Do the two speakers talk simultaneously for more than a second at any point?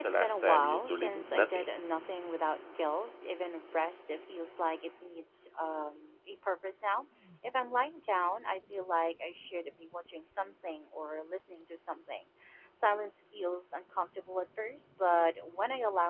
Yes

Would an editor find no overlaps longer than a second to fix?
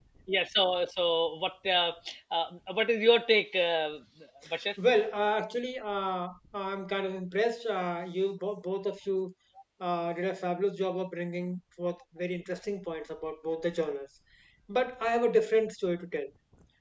Yes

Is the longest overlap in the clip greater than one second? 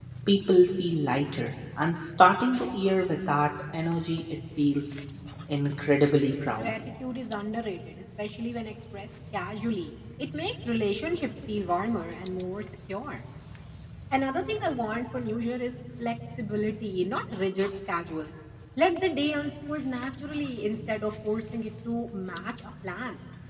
No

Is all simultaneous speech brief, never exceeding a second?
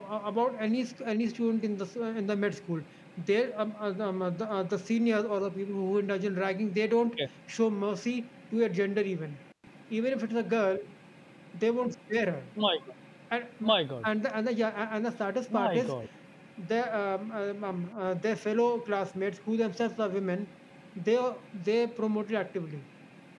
Yes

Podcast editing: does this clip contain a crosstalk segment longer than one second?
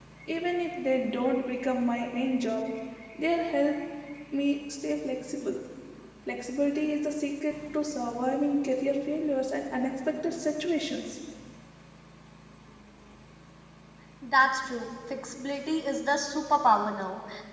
No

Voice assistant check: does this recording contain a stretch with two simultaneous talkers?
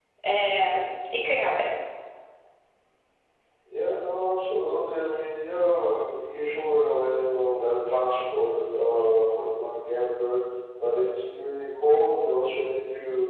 No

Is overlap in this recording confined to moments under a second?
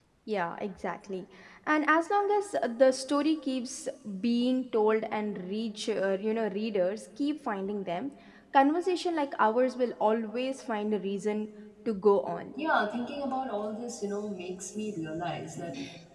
Yes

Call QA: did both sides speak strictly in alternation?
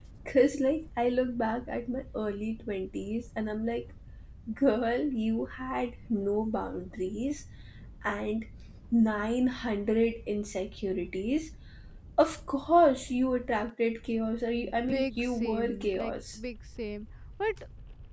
No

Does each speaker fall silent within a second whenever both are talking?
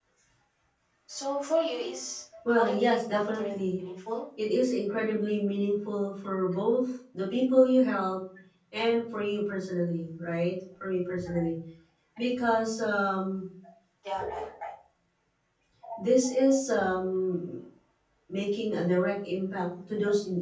No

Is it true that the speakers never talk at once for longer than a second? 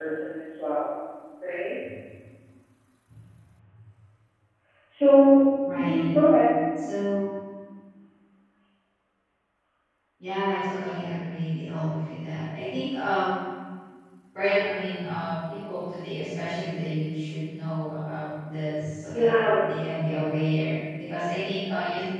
Yes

